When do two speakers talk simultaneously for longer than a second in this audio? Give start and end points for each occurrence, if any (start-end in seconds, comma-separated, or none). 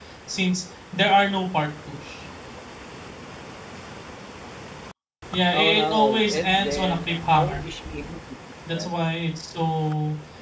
5.5-7.6